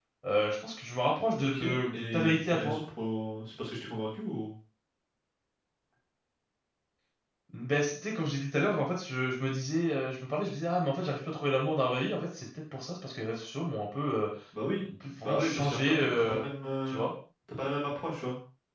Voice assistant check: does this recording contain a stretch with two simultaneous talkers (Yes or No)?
Yes